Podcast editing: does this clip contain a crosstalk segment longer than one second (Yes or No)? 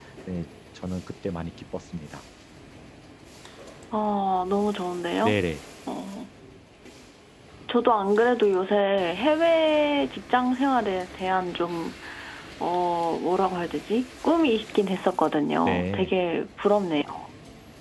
No